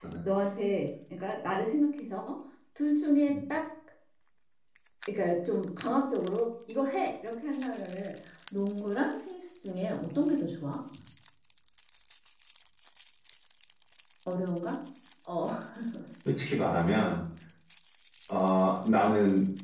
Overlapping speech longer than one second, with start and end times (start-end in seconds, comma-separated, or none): none